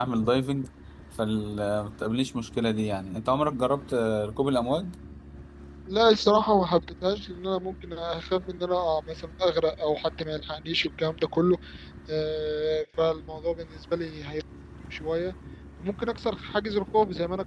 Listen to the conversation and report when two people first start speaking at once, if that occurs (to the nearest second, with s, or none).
none